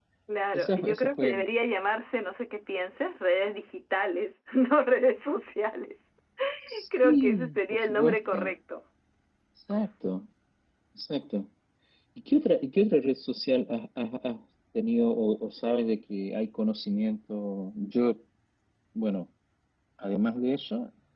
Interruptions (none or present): present